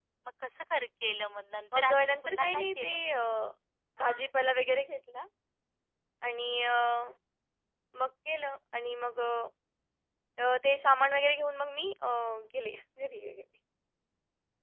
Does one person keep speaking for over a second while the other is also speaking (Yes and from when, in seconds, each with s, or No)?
Yes, from 1.7 s